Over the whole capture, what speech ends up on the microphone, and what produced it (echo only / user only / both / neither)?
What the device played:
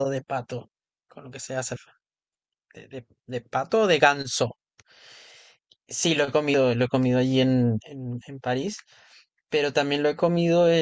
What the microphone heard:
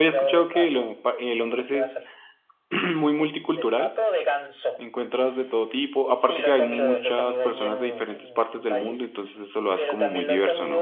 both